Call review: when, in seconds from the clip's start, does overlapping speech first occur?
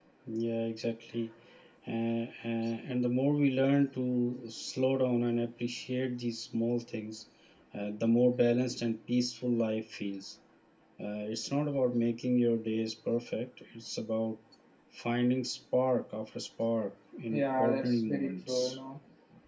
17 s

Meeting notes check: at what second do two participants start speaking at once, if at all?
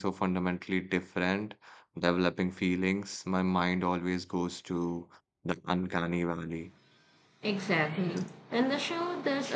none

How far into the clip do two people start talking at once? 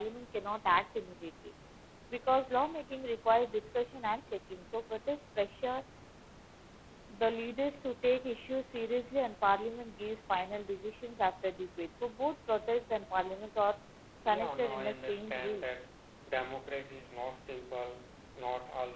14 s

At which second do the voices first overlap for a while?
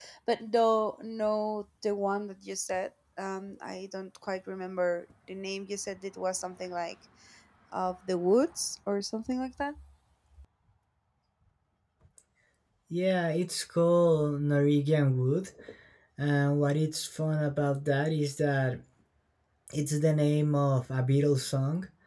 none

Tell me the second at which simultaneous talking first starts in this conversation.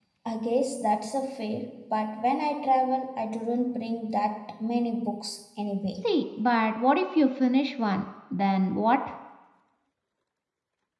none

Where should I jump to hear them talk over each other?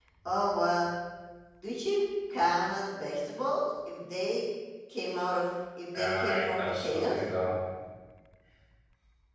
6 s

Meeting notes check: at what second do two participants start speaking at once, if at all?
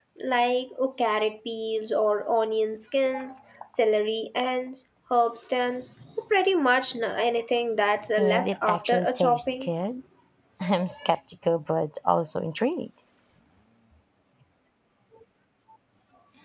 8 s

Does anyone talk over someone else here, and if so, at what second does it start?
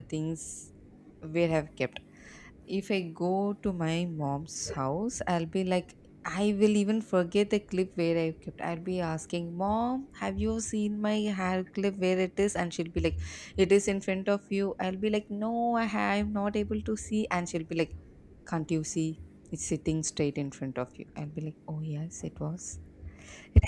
none

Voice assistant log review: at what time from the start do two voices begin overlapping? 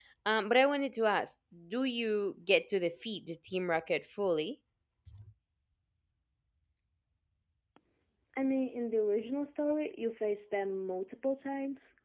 none

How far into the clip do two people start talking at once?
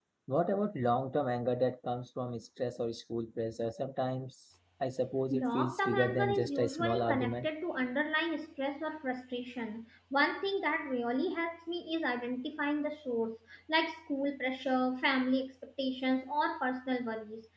5 s

